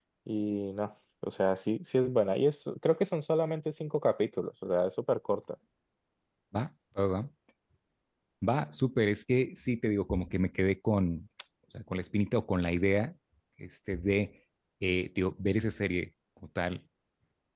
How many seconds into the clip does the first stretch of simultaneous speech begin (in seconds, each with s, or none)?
none